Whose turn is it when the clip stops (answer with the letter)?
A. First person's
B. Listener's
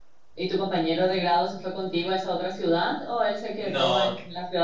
A